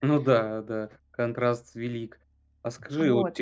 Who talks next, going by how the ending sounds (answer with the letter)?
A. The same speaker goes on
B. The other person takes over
A